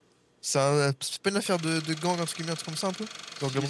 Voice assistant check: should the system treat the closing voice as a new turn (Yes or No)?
Yes